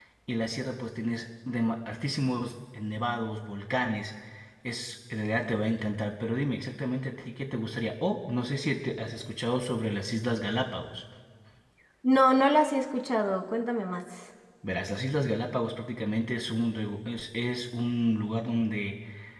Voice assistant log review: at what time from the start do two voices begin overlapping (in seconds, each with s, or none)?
none